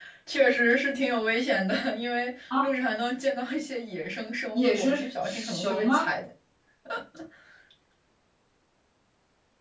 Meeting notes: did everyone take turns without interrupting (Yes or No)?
No